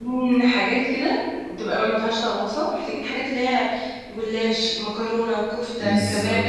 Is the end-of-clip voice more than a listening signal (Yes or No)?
No